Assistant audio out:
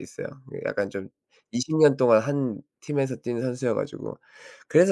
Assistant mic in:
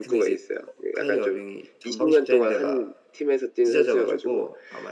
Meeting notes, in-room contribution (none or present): present